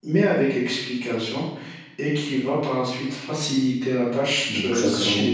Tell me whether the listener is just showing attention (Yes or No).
Yes